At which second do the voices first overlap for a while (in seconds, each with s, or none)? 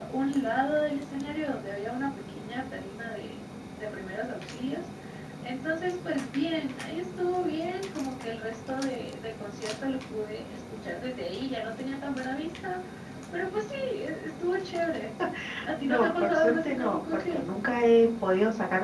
15.8 s